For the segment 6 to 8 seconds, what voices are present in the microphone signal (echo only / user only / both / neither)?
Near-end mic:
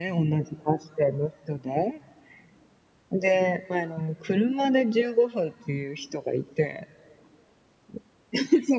echo only